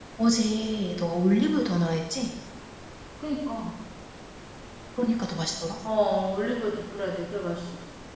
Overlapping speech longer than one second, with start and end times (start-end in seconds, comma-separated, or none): none